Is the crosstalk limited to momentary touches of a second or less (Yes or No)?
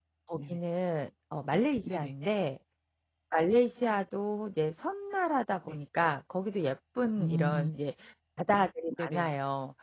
Yes